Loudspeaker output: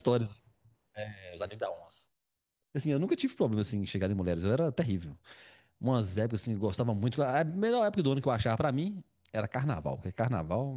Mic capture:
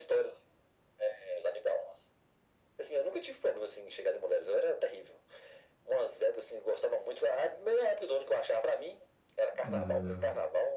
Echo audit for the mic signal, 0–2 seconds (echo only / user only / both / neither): echo only